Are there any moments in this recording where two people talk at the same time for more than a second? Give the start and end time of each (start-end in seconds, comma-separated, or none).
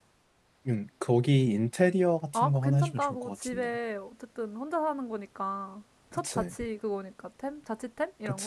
2.3-3.7